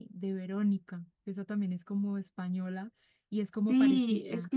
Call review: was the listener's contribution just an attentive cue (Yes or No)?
No